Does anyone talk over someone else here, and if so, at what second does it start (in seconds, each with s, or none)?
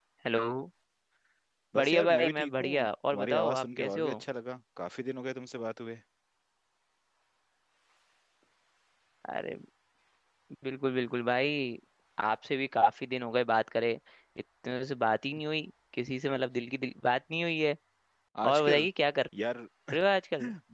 1.8 s